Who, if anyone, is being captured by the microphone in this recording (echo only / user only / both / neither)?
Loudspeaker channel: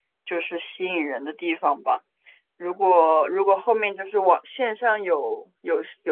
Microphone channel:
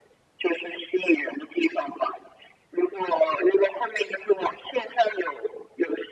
echo only